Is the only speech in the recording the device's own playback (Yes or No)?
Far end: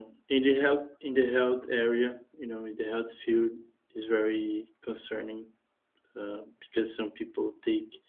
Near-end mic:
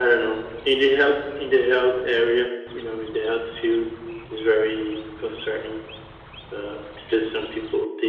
Yes